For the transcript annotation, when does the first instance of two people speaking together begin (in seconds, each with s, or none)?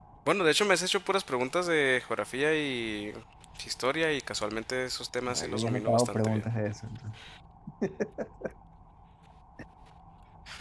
5.3 s